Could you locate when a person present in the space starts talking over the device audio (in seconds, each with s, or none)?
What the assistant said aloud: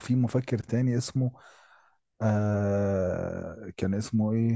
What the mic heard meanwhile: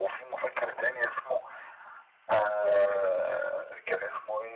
none